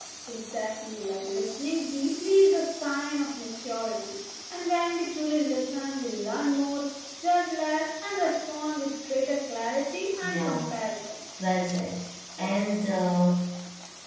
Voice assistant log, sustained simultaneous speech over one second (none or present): none